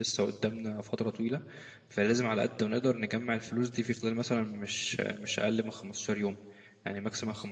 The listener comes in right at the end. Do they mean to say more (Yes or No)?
No